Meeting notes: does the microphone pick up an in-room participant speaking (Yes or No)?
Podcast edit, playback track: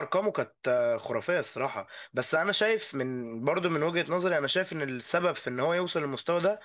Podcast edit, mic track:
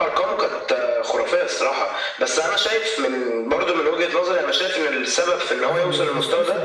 Yes